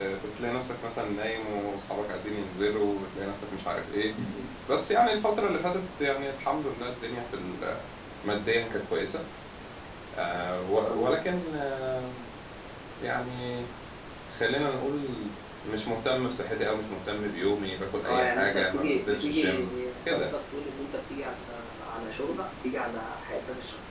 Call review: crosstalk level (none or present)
present